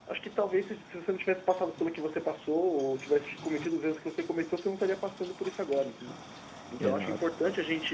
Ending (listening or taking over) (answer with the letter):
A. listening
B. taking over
A